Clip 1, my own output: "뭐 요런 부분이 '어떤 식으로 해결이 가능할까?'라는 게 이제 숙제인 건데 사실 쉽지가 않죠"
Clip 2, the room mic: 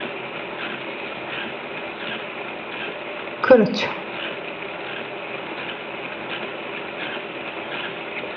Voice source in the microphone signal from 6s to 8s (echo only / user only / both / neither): neither